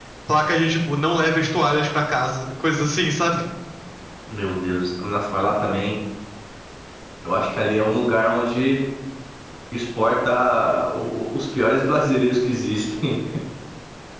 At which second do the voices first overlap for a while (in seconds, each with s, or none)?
none